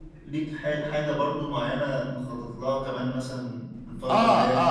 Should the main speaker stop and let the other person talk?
Yes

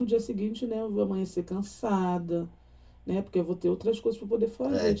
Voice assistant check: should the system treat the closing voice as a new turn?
Yes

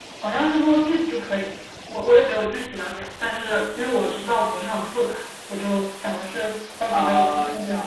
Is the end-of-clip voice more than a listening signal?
Yes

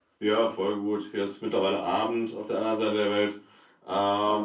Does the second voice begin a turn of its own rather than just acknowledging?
No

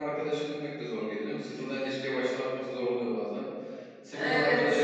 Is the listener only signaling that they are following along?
Yes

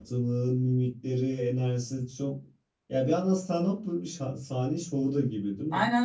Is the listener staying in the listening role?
No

